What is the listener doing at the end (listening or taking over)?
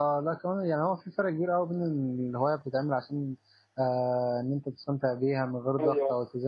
listening